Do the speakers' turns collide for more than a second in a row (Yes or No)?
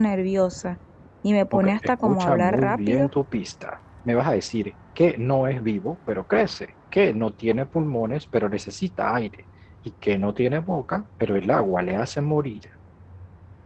Yes